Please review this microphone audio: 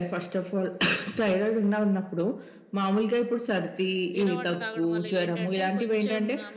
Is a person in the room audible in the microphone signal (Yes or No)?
Yes